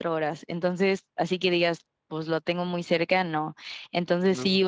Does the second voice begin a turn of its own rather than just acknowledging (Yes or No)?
No